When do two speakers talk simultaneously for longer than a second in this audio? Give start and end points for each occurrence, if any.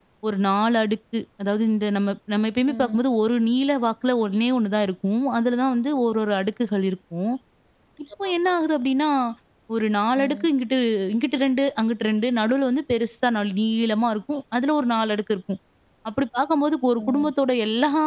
none

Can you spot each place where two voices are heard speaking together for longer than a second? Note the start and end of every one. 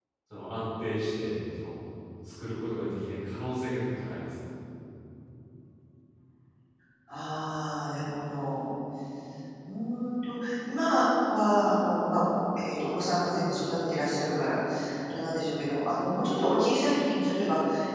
none

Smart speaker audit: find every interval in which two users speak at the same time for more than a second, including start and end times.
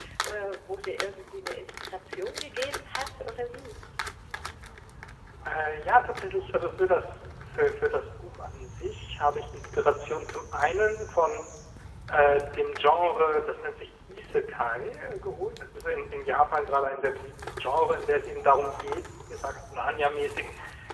none

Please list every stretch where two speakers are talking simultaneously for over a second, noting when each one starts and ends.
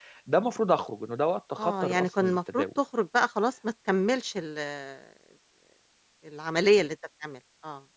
1.6-2.8

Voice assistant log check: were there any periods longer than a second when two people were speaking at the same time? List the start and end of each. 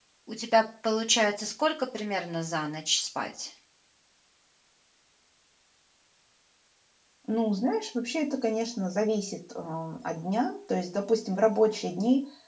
none

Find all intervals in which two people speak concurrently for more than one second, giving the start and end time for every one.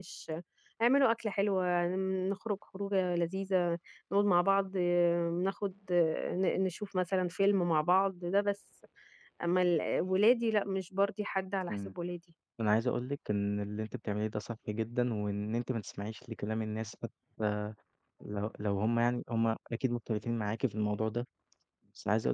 none

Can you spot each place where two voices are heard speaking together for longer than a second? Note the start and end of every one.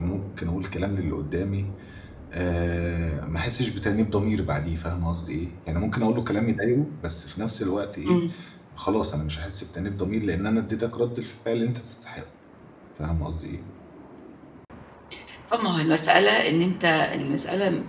none

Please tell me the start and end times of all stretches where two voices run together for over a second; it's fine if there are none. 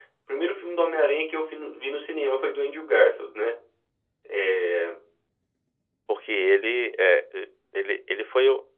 none

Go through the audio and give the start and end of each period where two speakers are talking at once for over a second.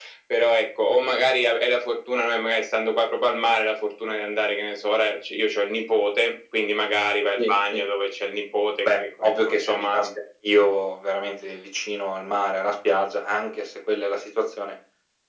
8.8-10.1

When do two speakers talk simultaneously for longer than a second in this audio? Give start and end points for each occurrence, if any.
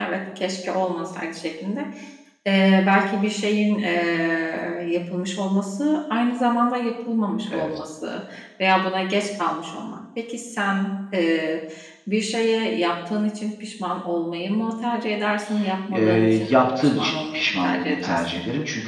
15.9-18.2

